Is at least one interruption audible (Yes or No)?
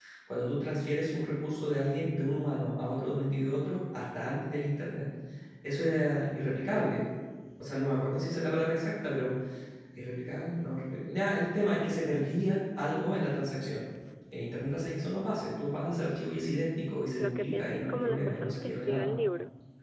Yes